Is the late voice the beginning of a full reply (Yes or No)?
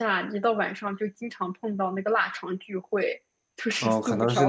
Yes